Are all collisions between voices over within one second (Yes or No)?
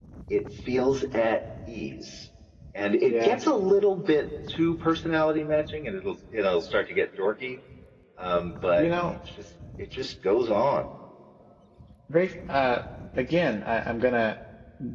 Yes